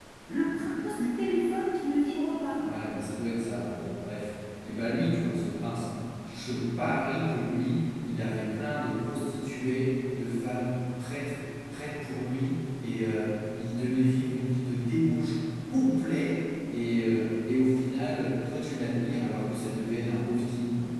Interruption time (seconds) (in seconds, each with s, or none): none